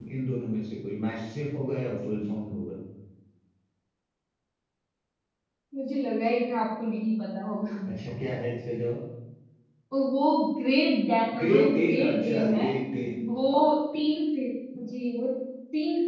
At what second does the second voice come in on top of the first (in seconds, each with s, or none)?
11.4 s